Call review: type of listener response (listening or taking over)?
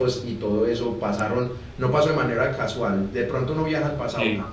listening